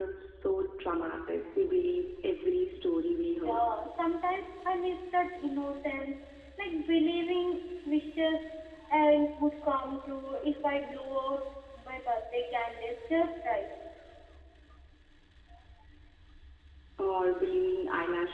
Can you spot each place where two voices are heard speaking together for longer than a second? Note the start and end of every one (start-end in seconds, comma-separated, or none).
none